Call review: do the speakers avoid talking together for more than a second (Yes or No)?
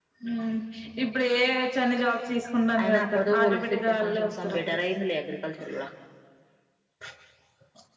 No